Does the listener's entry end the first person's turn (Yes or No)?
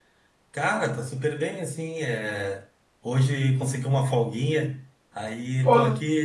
No